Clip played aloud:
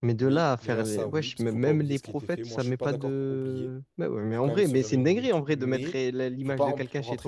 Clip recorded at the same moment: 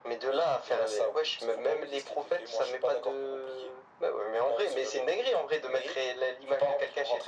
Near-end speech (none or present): none